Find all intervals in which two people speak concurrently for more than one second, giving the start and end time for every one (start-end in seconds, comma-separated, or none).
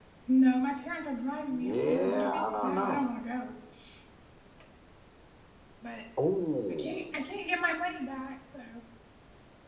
1.5-3.0